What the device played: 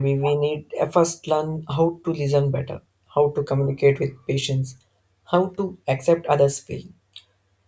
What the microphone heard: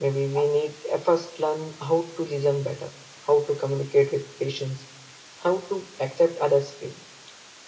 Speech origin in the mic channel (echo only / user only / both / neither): echo only